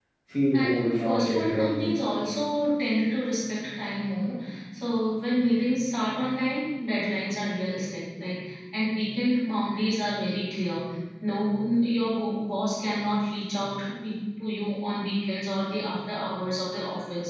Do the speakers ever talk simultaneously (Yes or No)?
Yes